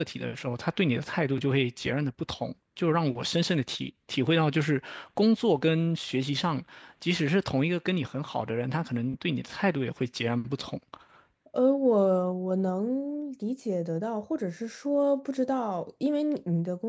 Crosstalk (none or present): none